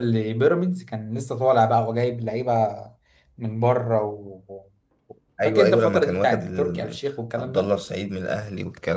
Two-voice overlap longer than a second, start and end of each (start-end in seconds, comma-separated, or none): 5.5-7.0